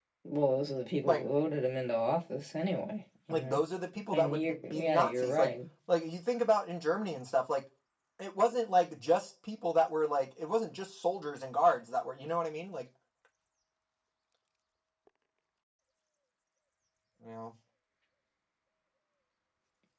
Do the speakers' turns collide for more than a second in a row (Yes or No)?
Yes